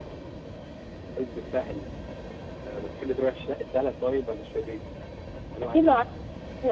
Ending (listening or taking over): taking over